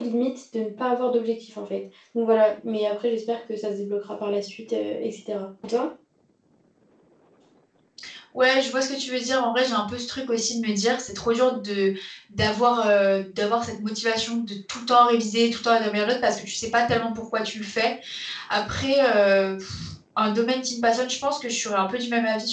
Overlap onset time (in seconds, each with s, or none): none